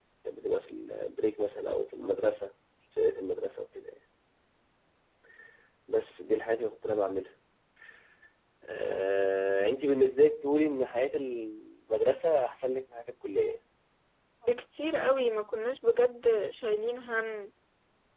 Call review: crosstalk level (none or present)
none